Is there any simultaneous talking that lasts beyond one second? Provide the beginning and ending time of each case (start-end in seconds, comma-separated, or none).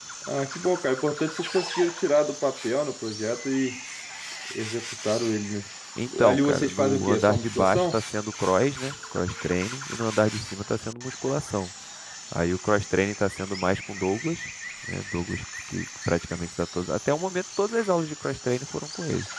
6.2-8.0